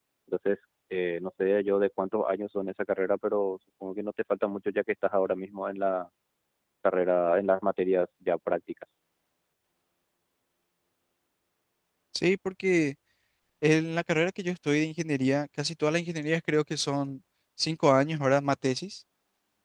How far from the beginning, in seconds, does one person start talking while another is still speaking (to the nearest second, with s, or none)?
none